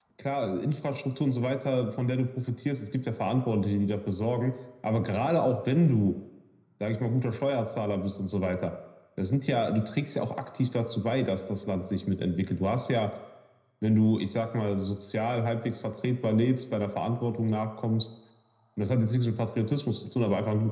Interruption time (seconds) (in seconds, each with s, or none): none